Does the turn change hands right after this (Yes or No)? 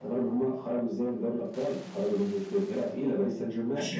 Yes